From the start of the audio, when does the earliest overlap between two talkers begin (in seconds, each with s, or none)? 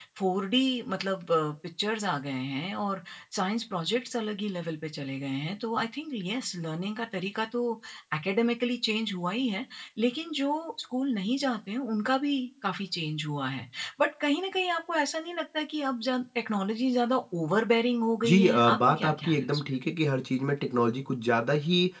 18.2 s